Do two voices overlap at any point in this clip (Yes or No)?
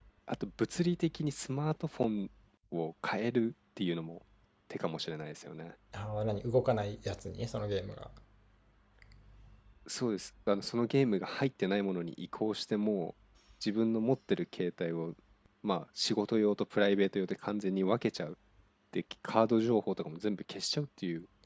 No